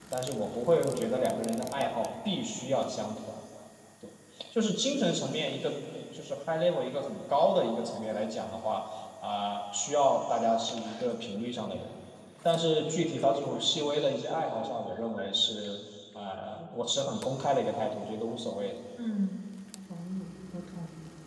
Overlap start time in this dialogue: none

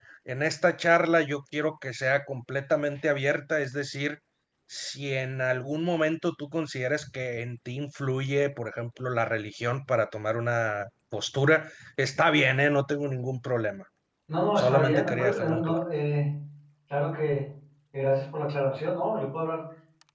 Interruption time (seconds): 15 s

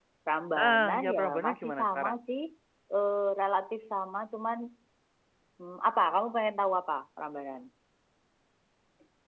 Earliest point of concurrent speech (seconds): 1 s

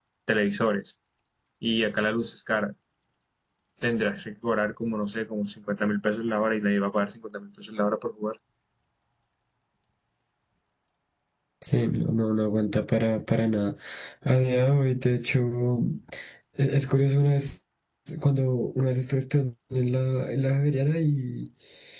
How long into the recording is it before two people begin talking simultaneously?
none

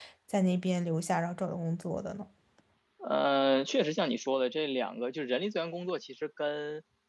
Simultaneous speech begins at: none

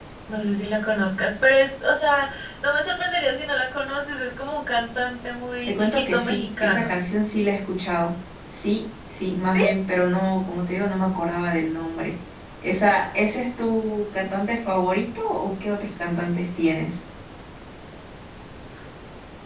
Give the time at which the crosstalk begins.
6 s

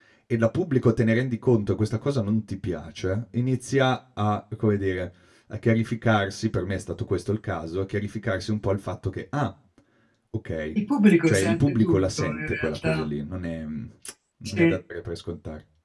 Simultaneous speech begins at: 11 s

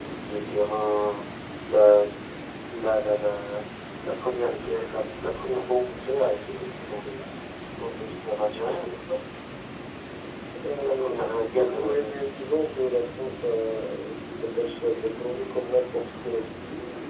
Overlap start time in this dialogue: 11 s

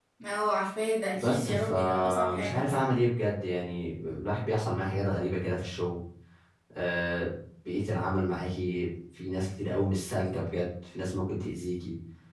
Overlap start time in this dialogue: 1 s

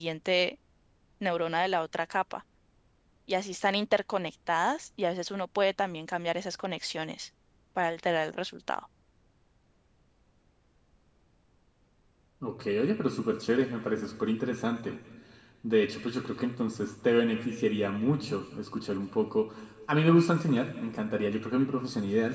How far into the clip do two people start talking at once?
none

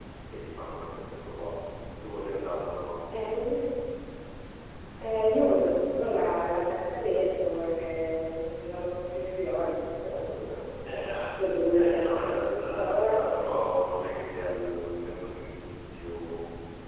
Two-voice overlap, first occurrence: 12 s

